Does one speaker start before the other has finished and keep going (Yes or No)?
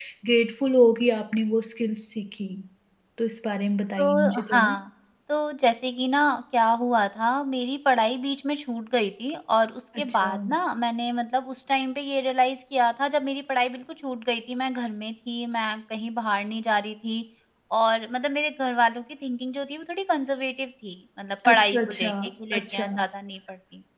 Yes